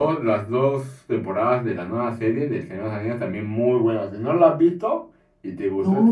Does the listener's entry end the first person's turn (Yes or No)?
Yes